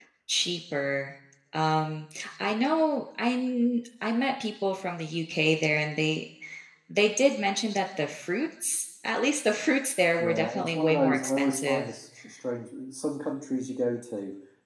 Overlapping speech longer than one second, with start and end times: 10.2-11.8

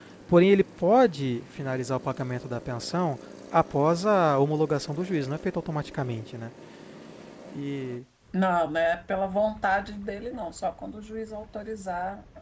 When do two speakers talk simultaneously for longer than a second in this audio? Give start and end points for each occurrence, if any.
none

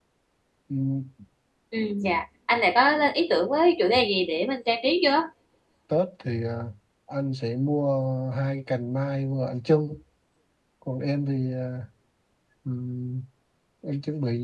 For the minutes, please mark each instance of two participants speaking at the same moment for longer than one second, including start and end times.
none

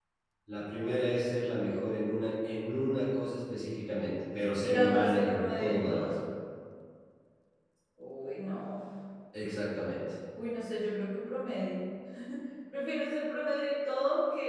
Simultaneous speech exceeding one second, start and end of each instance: 4.6-6.1

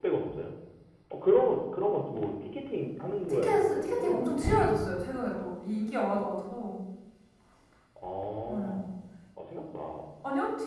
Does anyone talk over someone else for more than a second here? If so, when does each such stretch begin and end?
3.3-4.5

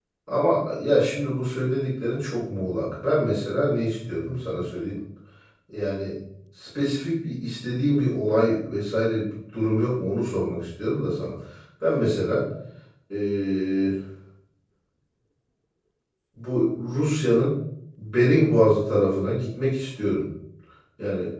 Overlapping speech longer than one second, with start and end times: none

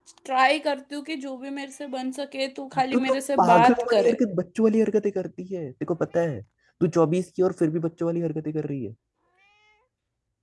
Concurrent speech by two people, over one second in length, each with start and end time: 2.9-4.2

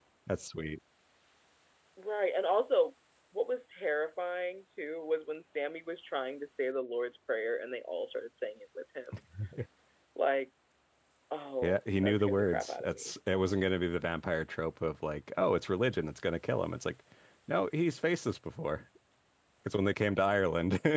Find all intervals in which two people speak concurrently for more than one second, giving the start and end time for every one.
11.6-13.1

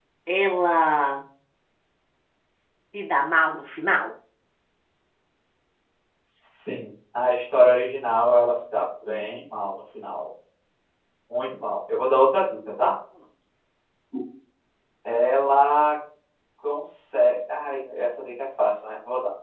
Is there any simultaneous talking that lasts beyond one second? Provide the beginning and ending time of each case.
none

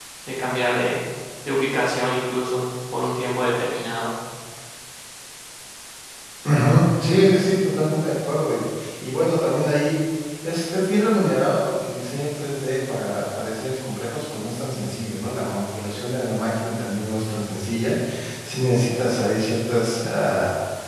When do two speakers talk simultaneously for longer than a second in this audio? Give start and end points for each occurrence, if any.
none

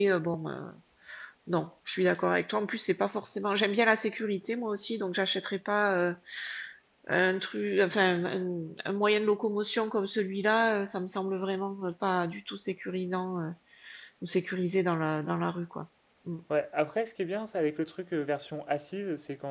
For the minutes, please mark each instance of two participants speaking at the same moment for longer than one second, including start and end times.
none

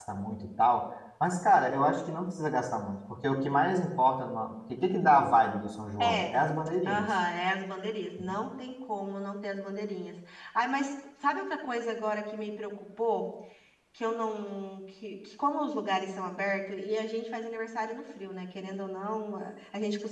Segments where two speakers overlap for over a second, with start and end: none

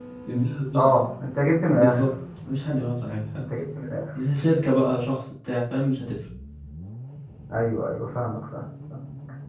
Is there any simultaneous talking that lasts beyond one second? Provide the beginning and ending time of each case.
none

